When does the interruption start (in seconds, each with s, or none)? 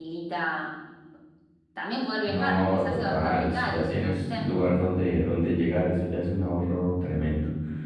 2.3 s